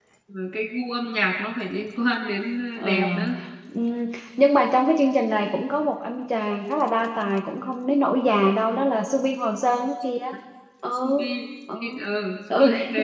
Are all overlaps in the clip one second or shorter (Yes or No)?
Yes